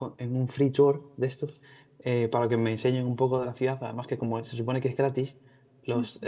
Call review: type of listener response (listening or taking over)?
listening